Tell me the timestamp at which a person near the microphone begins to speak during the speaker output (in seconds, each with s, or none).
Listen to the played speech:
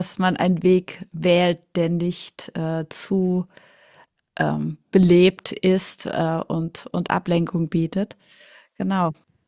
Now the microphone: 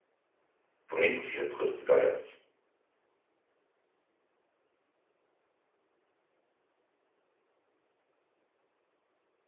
0.9 s